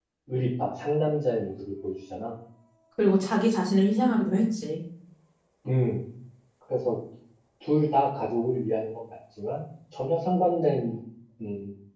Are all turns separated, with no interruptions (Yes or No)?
Yes